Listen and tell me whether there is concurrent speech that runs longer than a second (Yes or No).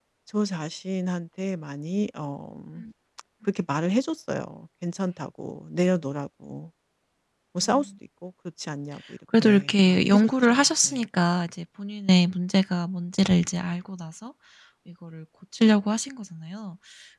Yes